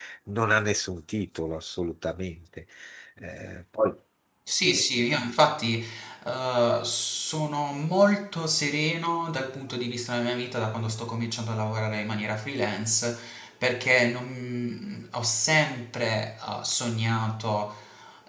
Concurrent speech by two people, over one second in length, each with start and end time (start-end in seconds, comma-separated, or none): none